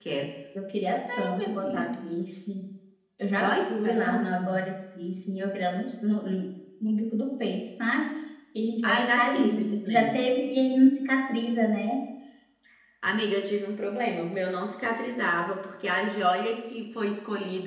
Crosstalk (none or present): present